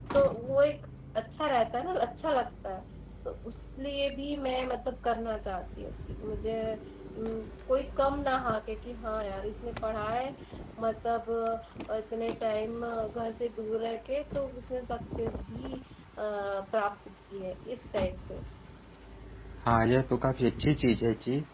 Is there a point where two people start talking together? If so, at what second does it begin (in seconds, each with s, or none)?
none